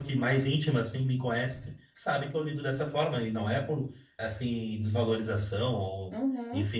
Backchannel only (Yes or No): Yes